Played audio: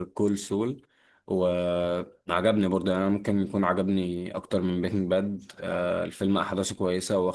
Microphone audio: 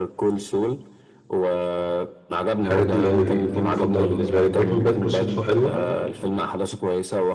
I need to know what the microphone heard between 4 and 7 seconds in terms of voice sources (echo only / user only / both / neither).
both